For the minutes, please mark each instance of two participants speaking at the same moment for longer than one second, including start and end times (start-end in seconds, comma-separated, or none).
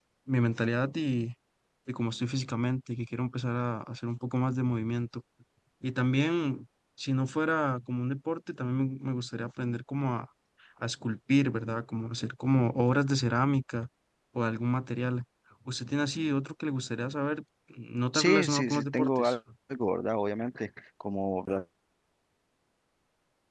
18.1-19.4